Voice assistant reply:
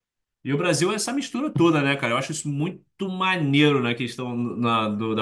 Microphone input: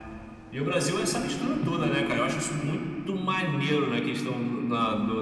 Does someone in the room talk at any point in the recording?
No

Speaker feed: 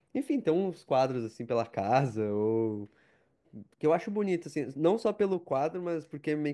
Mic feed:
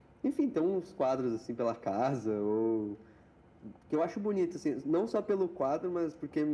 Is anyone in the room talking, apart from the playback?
No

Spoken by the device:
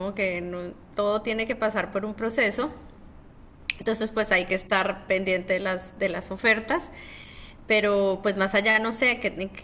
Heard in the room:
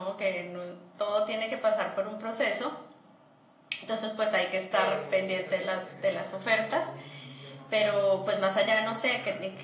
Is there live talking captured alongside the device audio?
Yes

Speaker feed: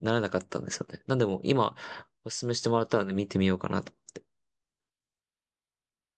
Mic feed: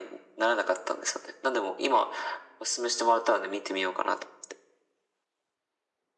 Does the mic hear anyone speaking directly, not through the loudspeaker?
No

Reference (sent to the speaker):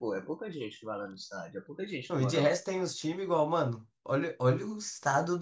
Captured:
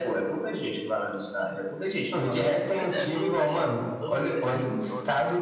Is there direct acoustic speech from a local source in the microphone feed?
Yes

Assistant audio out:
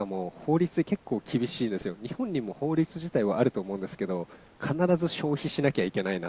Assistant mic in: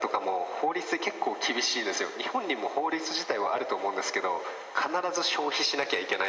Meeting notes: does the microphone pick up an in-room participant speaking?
No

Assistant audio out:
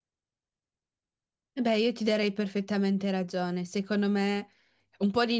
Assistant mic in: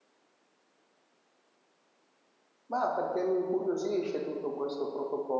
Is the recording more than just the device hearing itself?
Yes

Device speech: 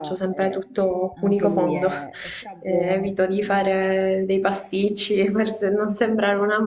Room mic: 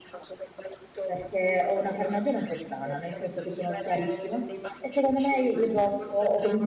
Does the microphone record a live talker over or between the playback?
Yes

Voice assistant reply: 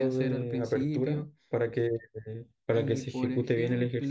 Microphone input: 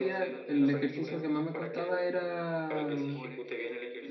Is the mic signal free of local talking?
No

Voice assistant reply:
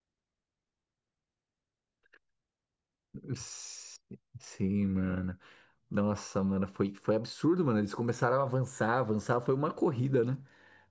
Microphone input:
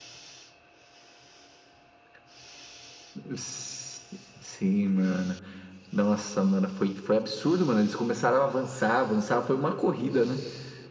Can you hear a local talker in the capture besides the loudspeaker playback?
No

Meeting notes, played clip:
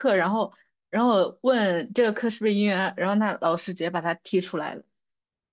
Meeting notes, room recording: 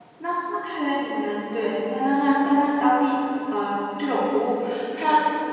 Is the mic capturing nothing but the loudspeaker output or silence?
No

